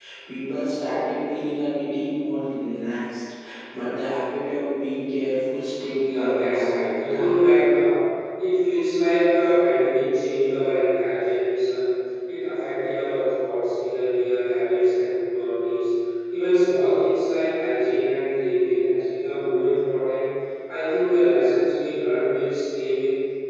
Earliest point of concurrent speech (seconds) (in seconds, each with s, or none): 6.0 s